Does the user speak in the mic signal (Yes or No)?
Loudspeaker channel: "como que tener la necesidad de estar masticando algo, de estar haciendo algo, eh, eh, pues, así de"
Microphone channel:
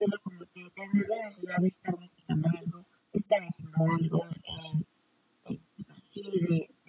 No